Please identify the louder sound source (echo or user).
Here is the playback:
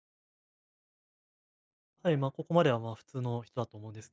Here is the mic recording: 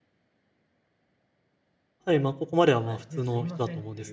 echo